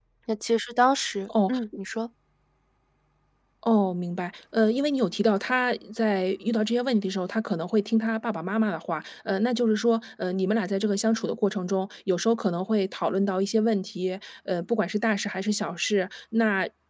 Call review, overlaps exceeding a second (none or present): none